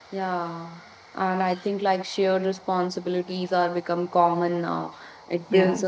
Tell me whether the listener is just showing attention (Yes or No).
Yes